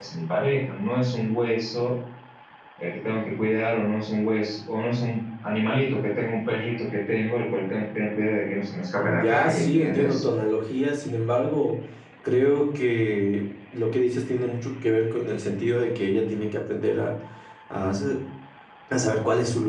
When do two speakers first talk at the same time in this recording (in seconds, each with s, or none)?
9.0 s